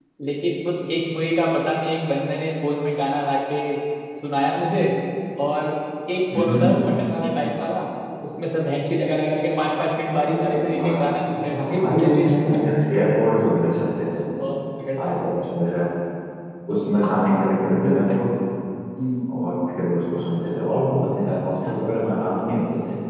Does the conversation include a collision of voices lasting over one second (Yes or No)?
Yes